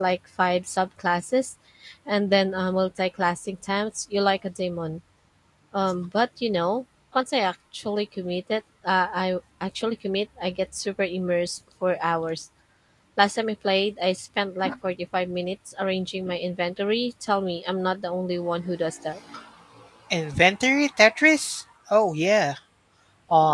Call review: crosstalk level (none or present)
none